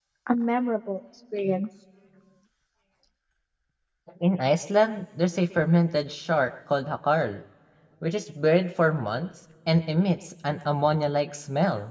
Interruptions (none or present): none